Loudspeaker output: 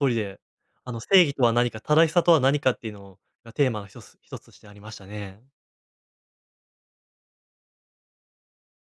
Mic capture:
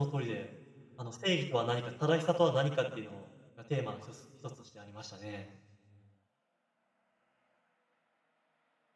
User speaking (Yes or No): No